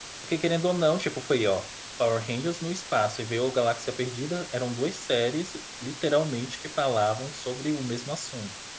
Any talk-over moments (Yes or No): No